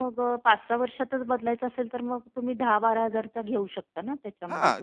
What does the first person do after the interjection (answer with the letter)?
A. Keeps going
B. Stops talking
B